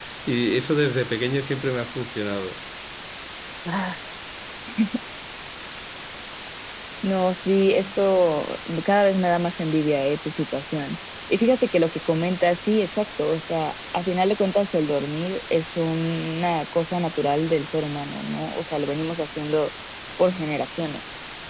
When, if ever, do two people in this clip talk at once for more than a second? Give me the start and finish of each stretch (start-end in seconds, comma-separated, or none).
none